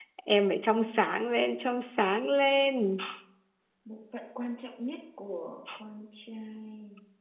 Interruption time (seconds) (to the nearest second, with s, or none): none